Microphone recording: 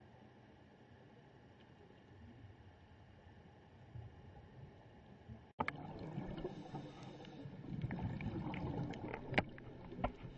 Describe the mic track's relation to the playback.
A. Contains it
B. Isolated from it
B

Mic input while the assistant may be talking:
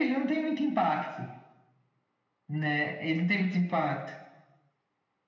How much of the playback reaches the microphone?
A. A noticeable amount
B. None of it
A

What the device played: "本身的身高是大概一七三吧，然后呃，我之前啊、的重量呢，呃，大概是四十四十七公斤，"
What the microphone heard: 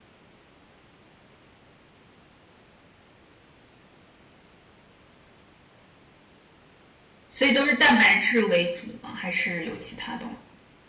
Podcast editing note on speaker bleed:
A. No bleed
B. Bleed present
A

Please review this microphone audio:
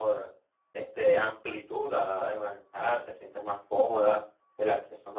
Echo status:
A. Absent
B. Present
A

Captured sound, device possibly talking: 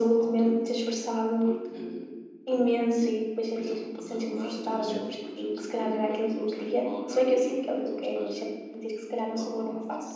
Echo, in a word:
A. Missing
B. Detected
B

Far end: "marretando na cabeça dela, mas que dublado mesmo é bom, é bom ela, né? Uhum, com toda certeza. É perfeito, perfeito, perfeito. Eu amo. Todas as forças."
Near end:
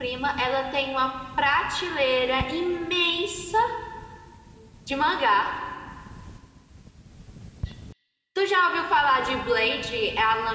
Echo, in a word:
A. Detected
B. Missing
B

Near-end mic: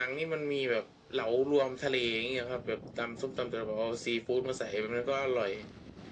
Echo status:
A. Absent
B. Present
B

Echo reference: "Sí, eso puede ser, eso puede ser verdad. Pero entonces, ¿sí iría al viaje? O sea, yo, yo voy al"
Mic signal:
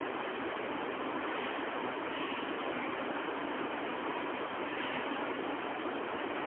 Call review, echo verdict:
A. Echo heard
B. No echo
B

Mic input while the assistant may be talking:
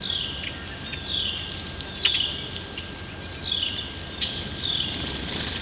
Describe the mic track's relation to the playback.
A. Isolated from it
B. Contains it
A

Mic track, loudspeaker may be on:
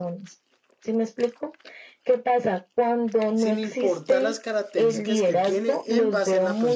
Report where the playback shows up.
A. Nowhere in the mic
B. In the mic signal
B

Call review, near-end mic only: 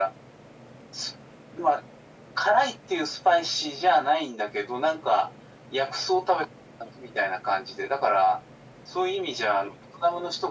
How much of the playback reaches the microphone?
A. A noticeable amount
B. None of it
A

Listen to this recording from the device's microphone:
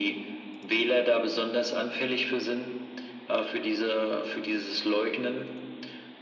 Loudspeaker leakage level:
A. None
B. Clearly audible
B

